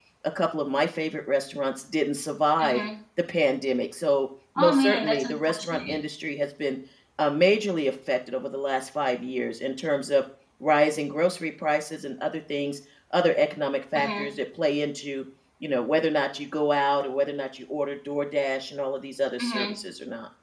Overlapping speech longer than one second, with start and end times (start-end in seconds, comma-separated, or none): 4.6-5.9